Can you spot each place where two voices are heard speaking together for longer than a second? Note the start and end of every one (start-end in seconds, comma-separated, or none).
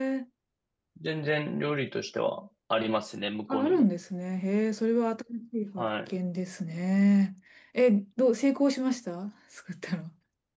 none